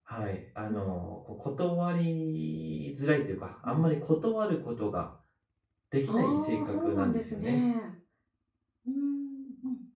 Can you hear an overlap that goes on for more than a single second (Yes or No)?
Yes